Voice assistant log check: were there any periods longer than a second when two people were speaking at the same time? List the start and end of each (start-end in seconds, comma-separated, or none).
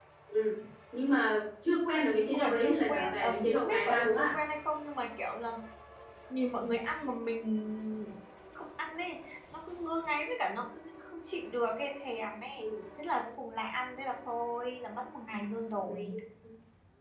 2.3-4.4